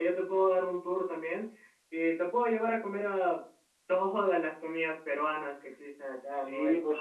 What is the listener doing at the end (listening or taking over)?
taking over